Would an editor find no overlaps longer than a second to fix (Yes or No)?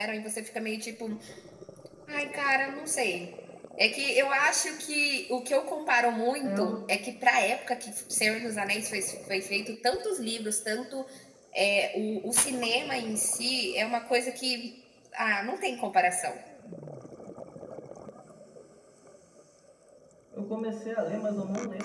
Yes